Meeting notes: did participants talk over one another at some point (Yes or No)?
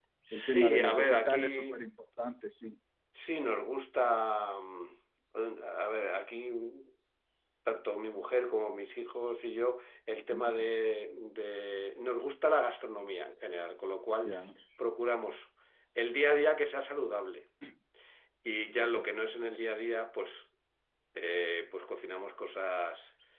Yes